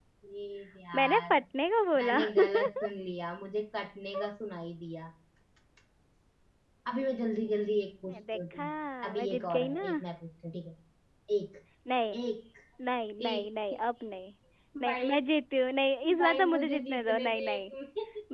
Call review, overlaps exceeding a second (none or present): present